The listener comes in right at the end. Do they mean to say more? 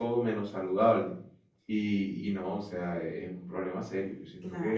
Yes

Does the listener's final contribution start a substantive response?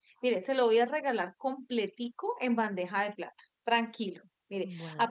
No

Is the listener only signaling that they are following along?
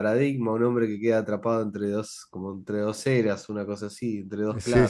No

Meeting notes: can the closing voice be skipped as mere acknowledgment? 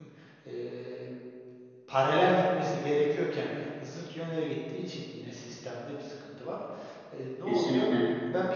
Yes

